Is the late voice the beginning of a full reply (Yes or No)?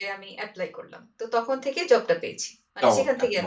Yes